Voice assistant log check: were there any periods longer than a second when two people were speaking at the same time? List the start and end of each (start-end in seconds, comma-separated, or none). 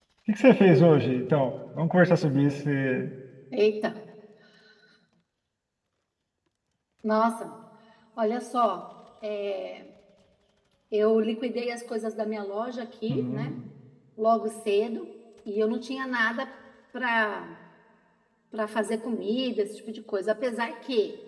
none